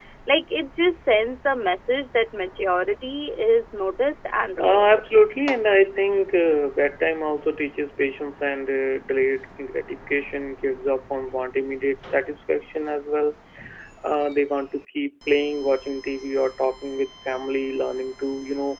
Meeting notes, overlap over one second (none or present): none